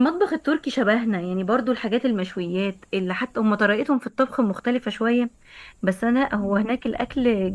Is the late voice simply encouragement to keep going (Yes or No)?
Yes